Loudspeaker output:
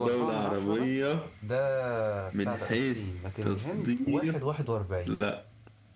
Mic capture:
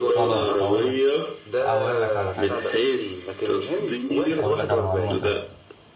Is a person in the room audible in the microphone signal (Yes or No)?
Yes